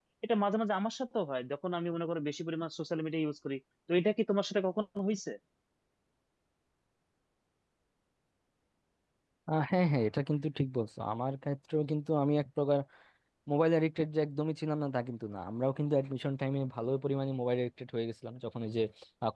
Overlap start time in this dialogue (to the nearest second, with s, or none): none